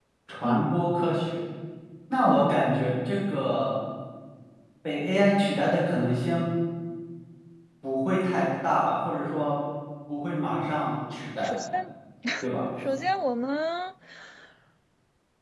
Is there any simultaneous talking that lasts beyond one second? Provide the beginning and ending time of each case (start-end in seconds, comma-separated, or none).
none